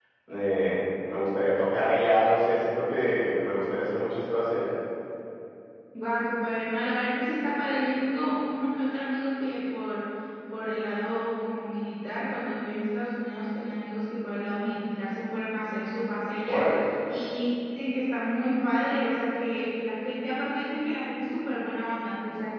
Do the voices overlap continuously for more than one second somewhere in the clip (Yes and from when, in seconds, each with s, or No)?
No